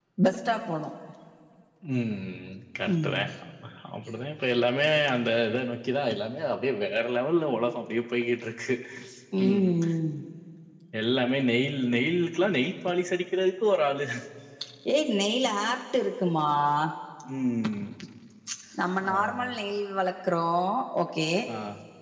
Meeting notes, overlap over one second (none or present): none